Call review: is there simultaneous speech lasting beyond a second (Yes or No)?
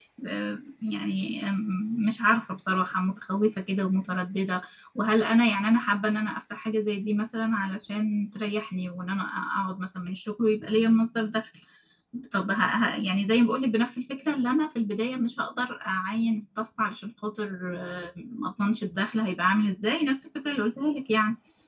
No